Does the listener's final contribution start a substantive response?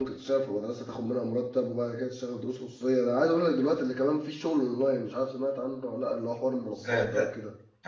Yes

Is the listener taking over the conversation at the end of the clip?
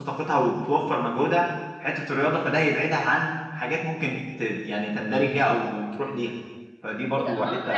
Yes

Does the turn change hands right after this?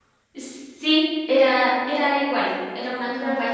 No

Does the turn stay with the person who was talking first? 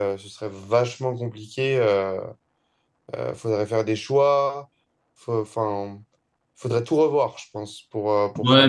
No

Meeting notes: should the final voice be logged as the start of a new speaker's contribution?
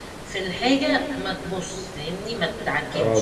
Yes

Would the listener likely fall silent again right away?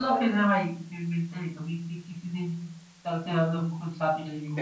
No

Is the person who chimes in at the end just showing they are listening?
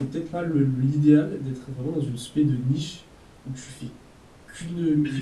No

